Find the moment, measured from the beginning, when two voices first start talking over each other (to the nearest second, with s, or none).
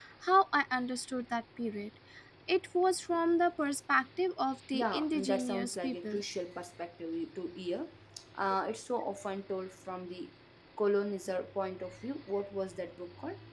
5 s